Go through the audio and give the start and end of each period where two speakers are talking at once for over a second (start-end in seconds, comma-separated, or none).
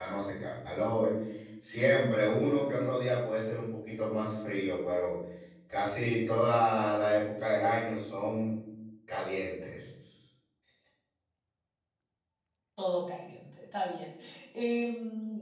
none